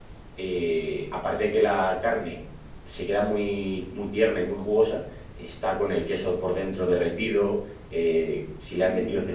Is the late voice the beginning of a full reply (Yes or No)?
No